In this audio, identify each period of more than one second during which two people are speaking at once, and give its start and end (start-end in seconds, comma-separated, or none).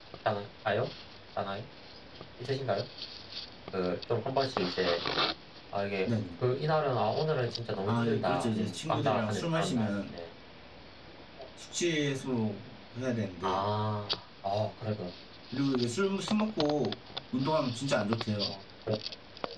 7.8-10.1